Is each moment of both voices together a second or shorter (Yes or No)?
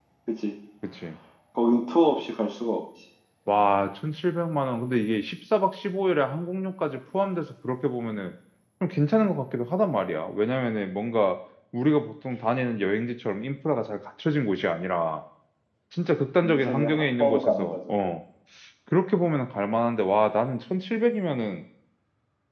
No